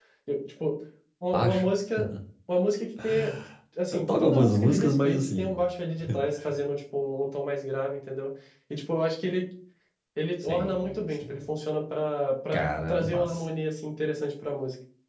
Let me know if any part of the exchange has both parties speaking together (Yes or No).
Yes